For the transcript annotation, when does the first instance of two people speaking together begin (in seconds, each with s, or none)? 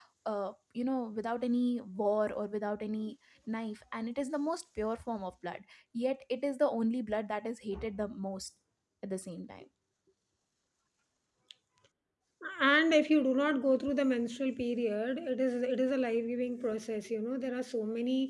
none